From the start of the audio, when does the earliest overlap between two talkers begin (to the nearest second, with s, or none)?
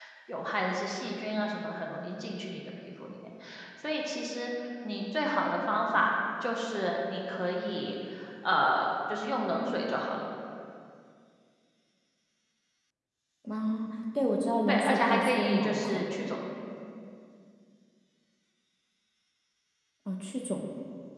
15 s